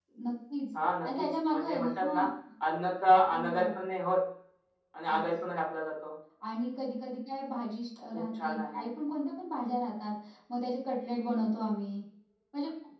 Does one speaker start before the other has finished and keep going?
Yes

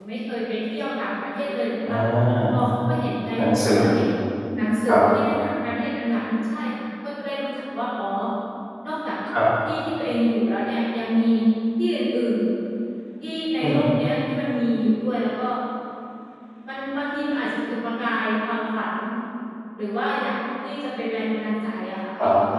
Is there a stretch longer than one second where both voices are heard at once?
No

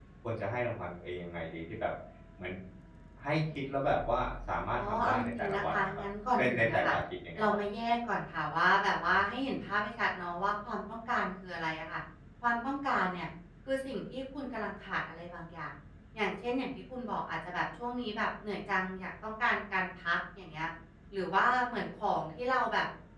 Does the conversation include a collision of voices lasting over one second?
Yes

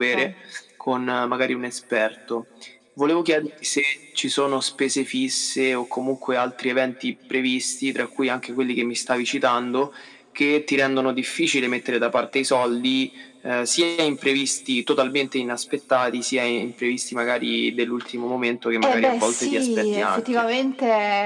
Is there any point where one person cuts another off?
Yes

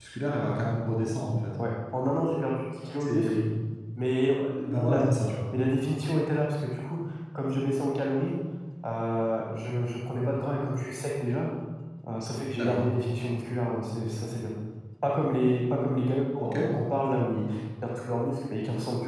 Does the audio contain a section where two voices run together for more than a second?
No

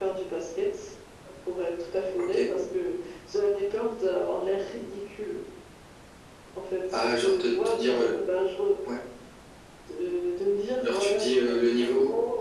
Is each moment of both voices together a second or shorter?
No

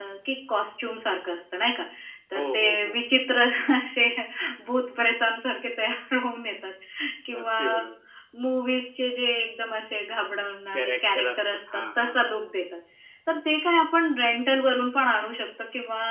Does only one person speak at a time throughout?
No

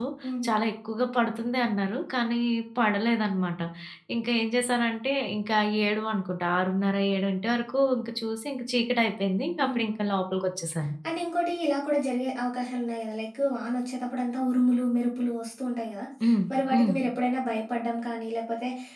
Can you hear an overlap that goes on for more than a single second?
No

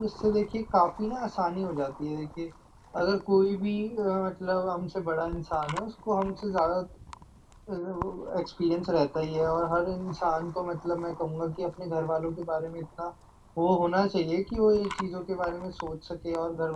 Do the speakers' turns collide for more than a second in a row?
No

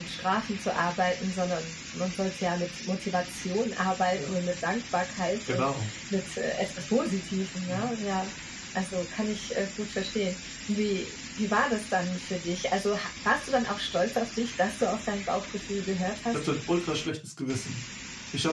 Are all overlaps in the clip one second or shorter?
Yes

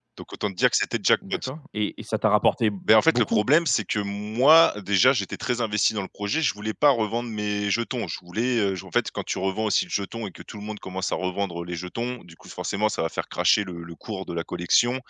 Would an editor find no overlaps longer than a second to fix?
Yes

